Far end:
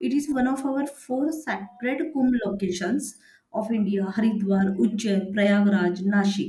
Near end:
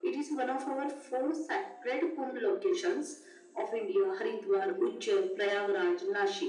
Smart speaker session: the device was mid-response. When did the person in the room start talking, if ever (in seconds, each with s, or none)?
none